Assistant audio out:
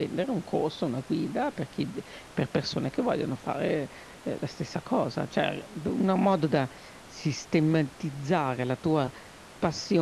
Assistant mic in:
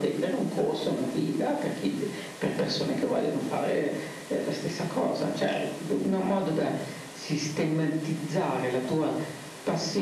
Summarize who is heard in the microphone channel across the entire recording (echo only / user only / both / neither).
echo only